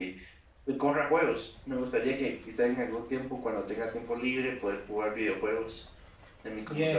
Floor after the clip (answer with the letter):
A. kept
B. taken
B